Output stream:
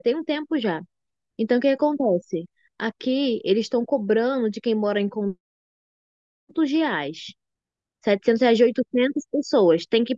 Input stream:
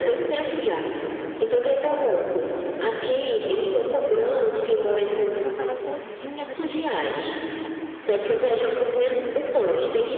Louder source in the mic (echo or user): echo